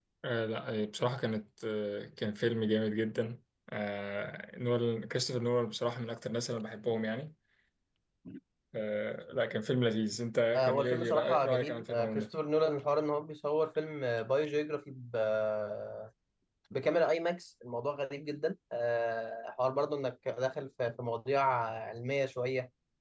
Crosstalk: present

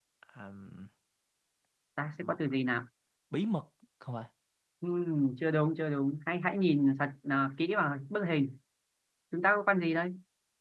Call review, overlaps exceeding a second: none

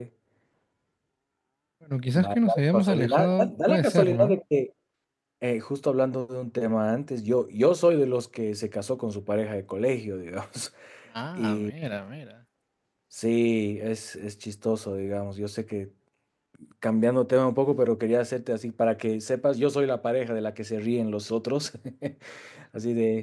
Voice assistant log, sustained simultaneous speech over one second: present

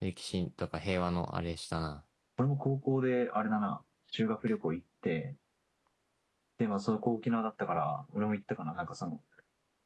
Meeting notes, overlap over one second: none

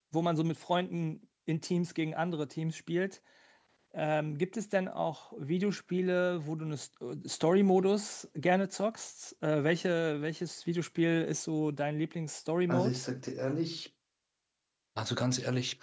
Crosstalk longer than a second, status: none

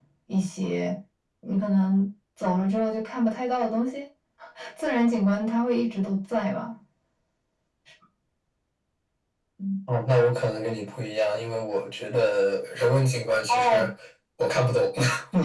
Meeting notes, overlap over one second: none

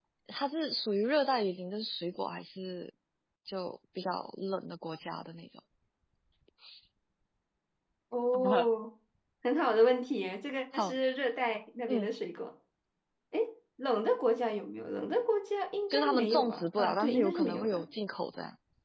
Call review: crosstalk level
present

